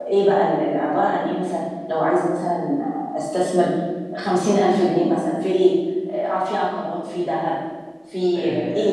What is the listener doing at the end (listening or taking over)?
taking over